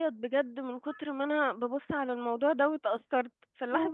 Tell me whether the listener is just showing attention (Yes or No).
Yes